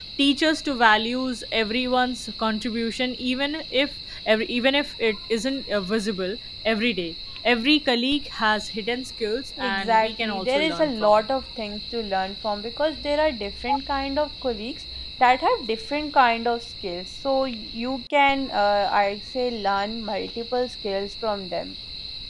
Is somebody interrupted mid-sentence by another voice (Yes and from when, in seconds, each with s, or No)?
Yes, from 9.6 s